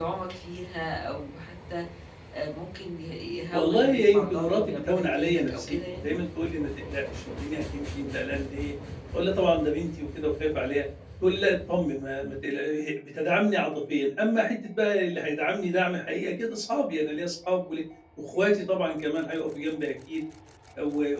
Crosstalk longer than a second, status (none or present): present